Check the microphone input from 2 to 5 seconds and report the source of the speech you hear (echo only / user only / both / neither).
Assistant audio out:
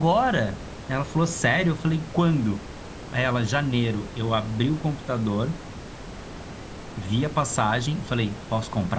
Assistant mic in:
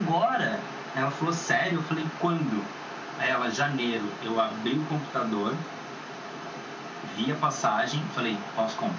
echo only